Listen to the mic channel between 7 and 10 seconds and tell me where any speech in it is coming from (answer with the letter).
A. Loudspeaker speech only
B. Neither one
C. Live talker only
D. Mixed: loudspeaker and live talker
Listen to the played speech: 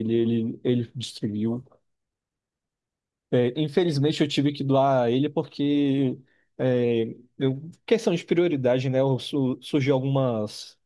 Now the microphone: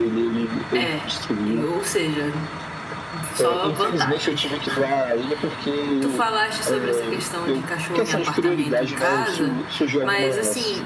D